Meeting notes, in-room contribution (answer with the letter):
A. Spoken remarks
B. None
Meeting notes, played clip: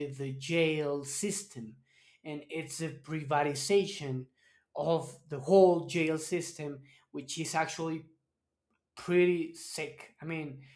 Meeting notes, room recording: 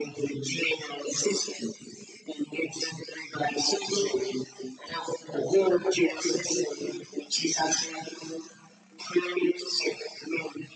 B